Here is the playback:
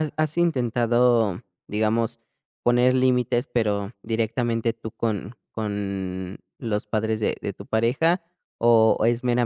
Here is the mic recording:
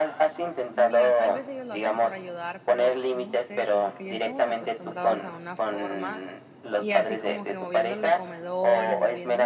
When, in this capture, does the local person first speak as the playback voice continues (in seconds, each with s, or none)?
0.7 s